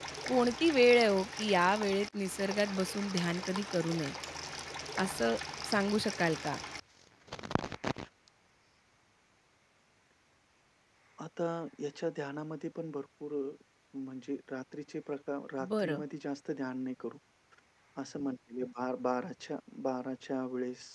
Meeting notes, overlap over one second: none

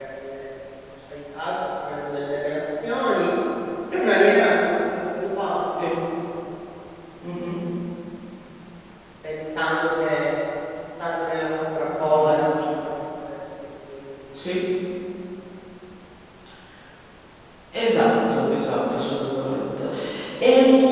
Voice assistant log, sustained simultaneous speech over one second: none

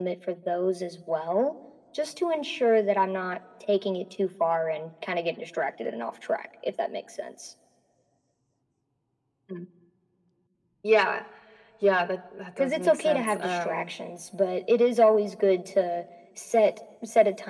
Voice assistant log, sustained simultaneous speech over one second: present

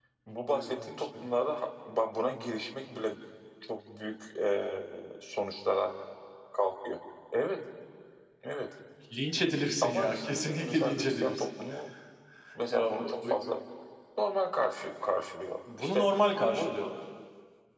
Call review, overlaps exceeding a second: present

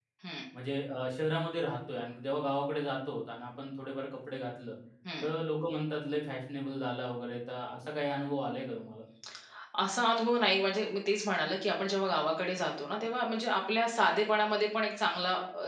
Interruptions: none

